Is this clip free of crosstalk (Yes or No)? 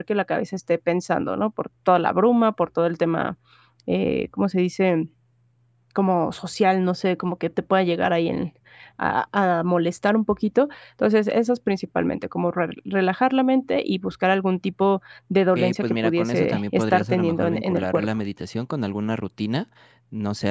No